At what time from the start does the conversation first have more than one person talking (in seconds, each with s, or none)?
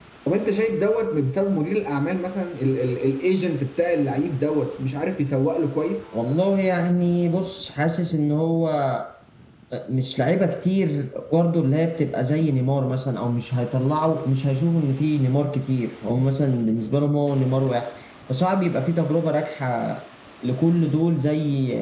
none